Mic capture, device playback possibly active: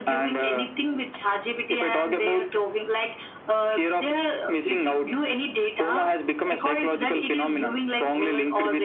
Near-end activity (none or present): none